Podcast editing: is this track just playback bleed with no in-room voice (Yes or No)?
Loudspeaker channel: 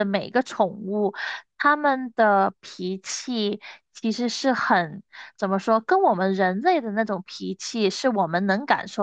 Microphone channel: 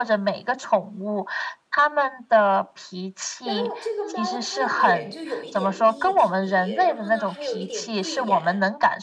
No